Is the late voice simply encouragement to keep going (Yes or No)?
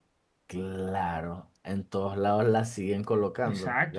No